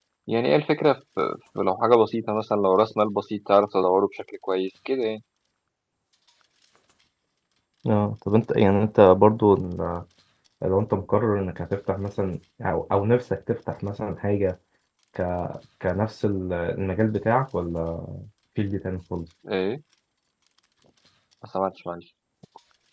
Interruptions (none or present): none